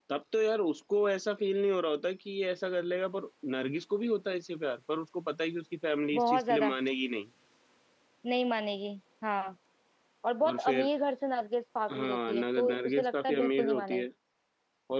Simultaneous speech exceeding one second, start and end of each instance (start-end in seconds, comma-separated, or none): 11.9-14.0